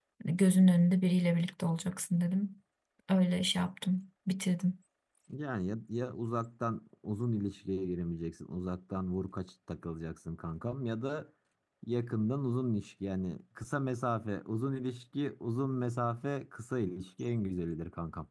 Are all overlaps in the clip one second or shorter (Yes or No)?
Yes